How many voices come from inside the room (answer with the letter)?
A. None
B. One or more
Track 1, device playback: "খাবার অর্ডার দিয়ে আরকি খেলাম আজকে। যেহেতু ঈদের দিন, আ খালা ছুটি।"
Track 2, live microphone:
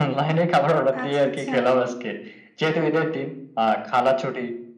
B